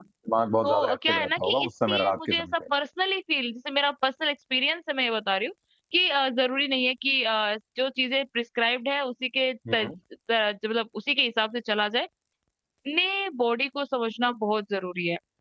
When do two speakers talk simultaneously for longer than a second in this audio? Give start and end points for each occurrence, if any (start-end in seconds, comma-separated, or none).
0.6-2.5